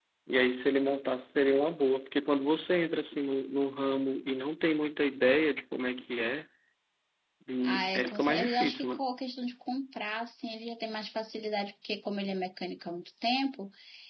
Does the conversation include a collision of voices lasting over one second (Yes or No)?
Yes